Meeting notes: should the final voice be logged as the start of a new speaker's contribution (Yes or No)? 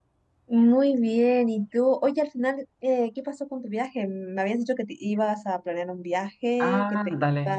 Yes